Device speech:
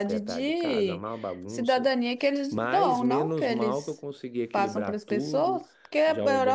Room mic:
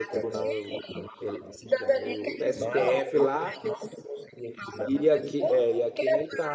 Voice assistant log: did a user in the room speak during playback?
Yes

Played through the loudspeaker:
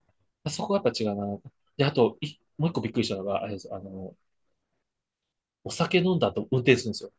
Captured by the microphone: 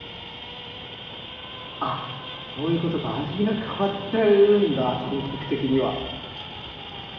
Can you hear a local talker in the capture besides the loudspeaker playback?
Yes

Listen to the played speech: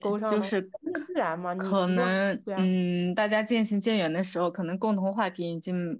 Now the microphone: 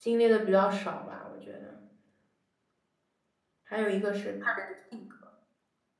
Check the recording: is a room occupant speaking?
Yes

